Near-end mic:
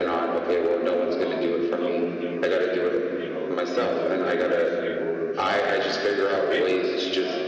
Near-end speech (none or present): present